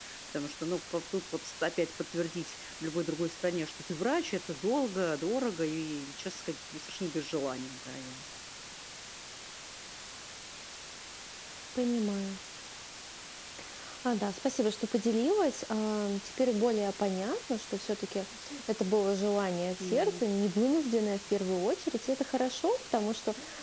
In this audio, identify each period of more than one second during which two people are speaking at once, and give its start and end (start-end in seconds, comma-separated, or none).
none